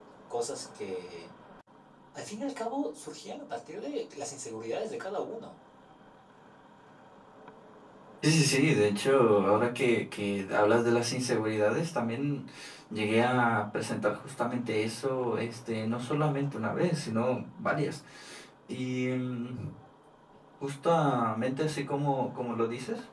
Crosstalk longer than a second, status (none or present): none